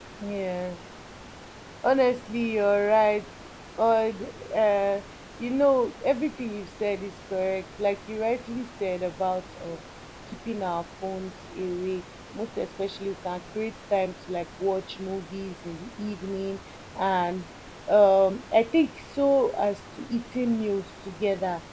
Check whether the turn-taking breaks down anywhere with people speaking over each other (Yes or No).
No